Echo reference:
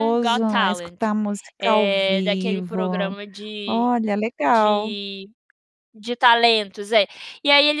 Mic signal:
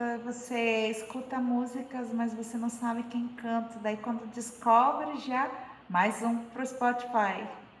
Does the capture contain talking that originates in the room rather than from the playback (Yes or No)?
Yes